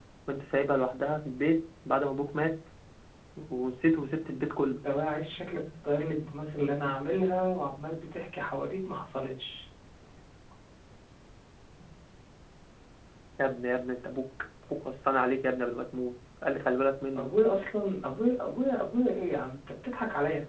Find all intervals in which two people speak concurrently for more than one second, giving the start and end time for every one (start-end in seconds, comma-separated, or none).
none